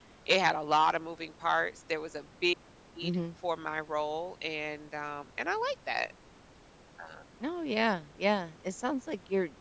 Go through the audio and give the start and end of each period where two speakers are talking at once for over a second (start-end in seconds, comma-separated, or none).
none